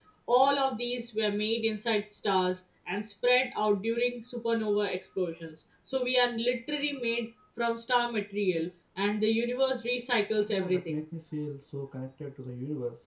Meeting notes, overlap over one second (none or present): none